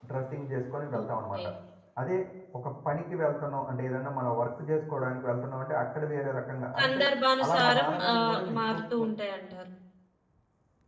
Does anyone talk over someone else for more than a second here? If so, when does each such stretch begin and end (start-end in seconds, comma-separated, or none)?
7.4-9.0